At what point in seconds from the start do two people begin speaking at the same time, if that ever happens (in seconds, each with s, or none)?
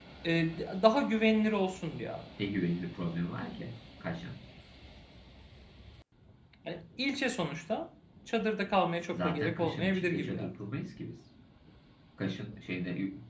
9.1 s